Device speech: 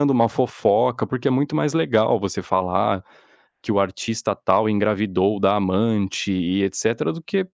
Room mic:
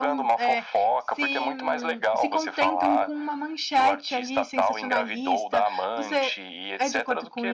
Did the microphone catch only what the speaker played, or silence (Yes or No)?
No